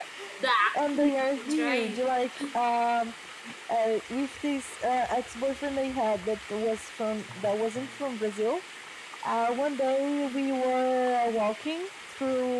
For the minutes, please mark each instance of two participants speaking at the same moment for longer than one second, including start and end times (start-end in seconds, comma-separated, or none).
0.7-2.0